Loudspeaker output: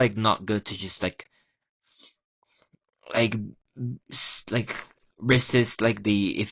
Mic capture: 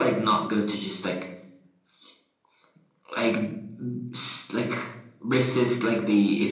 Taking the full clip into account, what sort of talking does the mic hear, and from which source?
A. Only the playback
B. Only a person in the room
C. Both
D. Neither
A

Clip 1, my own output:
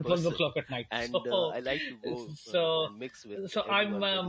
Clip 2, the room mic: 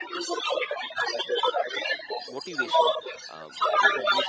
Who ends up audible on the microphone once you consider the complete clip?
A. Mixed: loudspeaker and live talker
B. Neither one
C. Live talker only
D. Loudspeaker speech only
A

